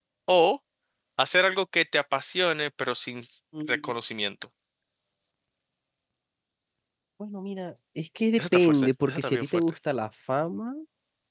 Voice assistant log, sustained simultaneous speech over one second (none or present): present